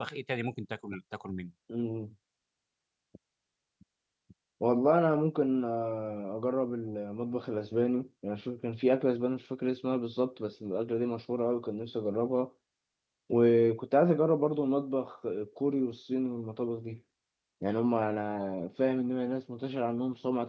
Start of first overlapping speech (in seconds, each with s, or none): none